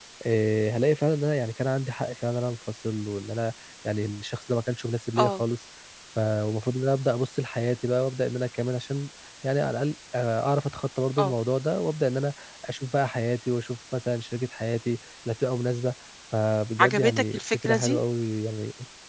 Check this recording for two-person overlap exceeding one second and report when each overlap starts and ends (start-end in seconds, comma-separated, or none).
16.8-18.0